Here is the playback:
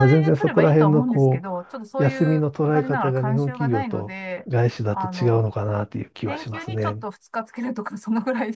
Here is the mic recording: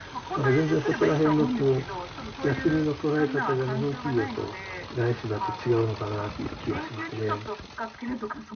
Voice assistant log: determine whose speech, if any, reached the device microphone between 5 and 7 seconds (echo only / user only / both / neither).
echo only